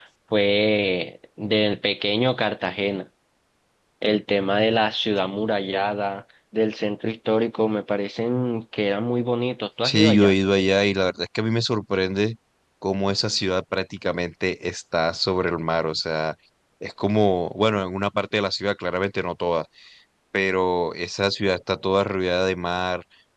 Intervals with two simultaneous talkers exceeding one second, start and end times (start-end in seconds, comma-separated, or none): none